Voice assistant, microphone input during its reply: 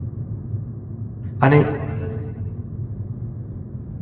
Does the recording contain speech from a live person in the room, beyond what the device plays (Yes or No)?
Yes